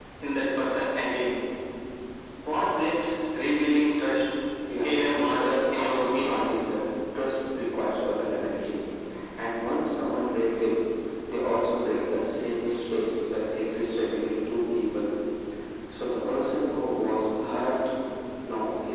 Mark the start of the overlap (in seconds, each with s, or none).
4.8 s